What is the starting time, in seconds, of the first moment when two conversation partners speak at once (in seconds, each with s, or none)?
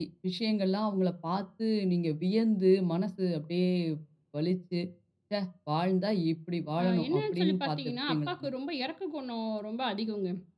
6.8 s